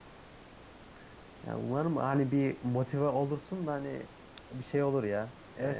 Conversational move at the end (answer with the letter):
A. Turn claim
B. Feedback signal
A